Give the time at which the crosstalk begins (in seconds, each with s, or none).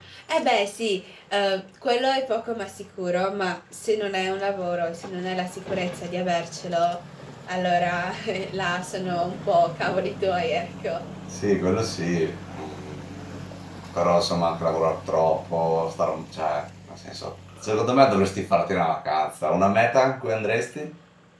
none